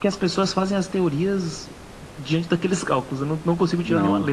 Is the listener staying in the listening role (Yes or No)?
No